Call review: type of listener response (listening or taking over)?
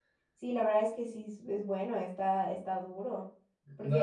taking over